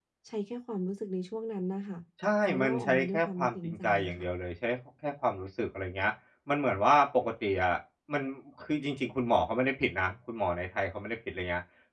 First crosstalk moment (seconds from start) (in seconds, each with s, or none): 2.4 s